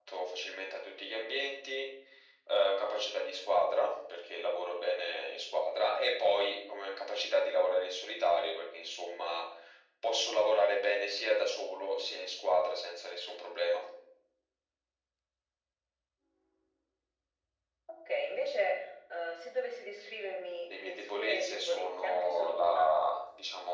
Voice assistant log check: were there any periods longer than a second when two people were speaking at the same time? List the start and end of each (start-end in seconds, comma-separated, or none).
20.7-22.9